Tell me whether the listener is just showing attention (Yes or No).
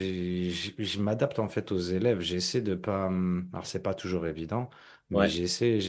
Yes